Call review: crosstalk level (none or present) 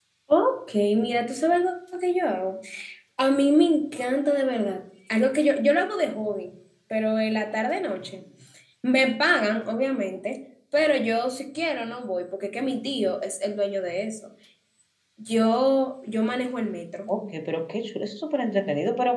none